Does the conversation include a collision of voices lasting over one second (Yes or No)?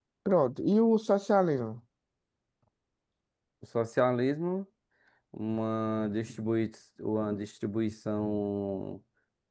No